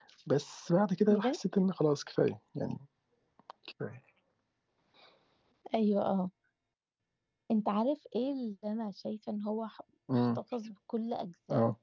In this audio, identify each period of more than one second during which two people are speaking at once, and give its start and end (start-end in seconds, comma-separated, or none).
none